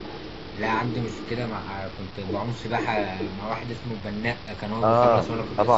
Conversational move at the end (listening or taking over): taking over